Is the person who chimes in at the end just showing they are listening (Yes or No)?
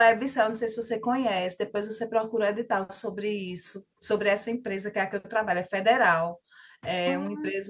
Yes